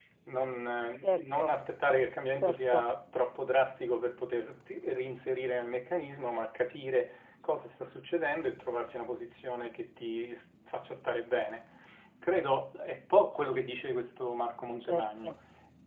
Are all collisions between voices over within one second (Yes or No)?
Yes